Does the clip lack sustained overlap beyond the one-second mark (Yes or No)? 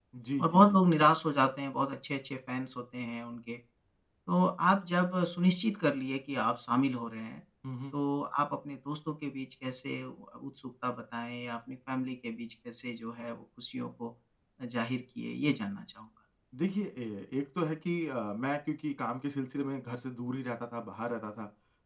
Yes